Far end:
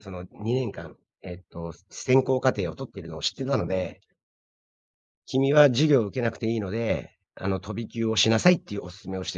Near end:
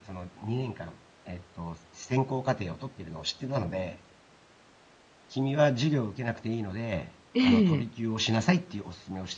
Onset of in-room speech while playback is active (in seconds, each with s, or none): 7.3 s